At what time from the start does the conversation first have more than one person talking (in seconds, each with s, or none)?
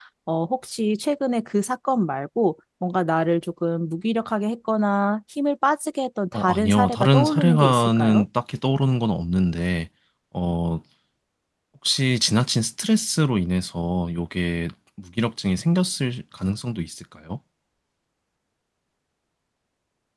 6.3 s